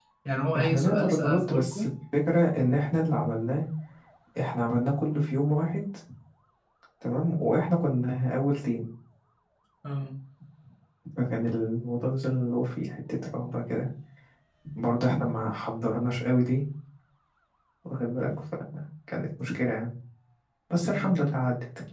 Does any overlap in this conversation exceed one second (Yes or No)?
Yes